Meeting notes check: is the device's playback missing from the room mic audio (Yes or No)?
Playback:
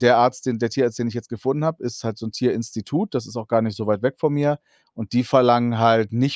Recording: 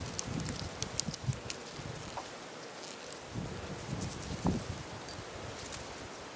Yes